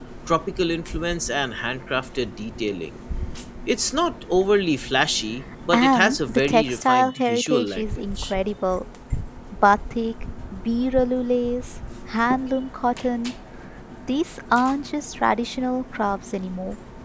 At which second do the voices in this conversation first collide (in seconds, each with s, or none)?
5.7 s